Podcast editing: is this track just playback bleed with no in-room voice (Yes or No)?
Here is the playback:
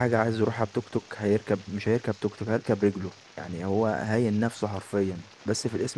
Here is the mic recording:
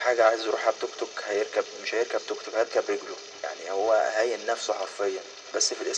Yes